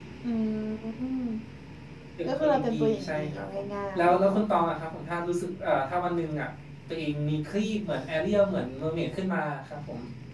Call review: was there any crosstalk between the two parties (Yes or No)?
Yes